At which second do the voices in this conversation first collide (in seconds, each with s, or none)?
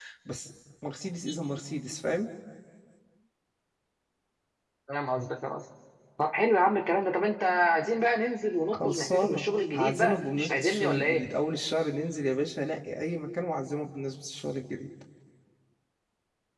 8.7 s